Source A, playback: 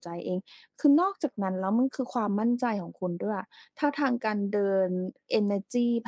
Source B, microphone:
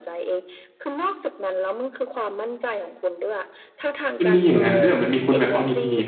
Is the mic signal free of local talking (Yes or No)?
No